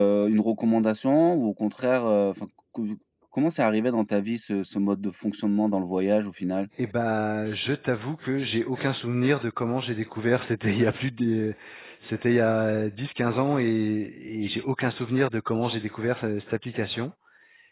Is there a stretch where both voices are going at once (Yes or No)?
No